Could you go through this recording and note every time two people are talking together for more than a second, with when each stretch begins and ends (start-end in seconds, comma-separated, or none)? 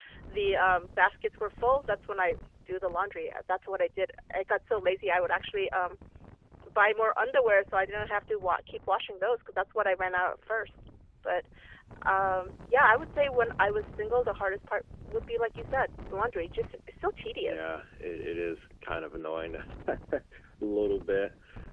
none